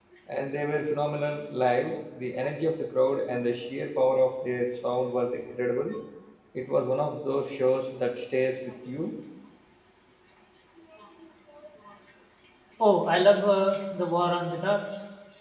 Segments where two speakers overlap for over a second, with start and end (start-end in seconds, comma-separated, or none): none